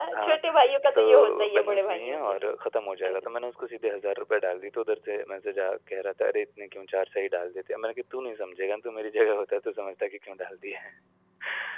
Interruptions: present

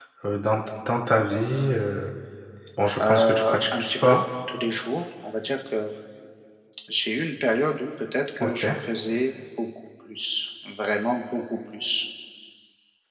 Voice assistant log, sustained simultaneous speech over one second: present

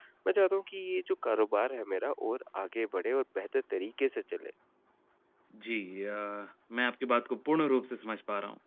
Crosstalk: none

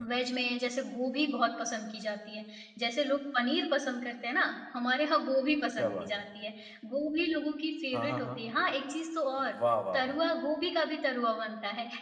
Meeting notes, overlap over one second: none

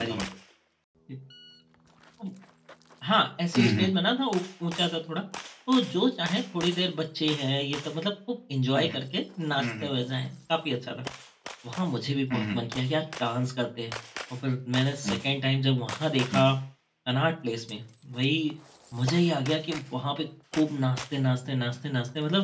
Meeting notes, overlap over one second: none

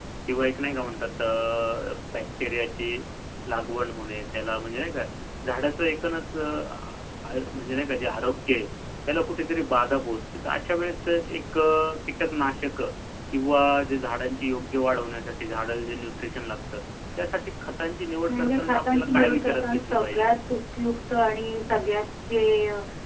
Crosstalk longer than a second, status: present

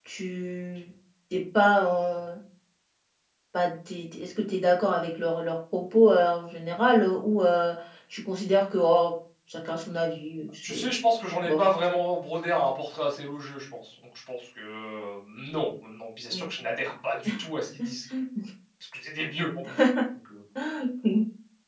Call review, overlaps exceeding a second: none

